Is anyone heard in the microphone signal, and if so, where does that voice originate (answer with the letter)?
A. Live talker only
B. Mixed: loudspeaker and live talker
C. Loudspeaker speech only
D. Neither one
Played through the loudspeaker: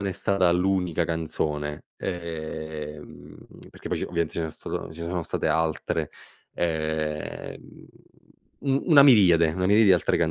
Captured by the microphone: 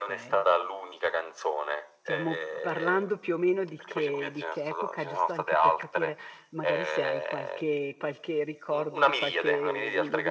B